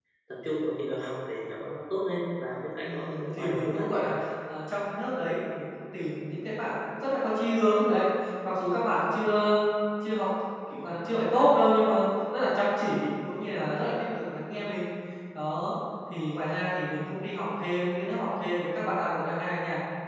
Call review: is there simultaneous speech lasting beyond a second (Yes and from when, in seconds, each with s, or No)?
Yes, from 2.8 s